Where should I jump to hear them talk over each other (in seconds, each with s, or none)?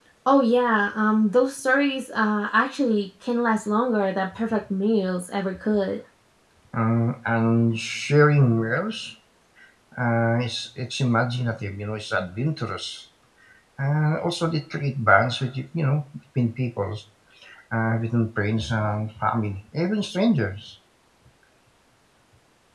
none